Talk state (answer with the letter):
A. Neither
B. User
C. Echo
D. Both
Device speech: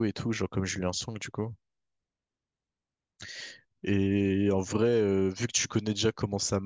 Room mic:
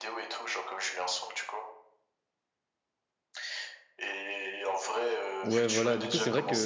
D